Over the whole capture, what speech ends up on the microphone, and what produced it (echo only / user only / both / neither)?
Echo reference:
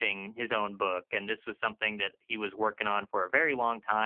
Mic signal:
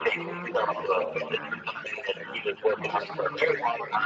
both